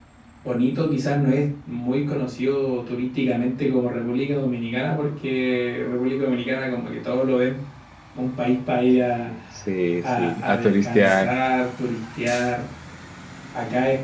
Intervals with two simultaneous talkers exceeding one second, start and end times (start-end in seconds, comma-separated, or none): 10.0-11.3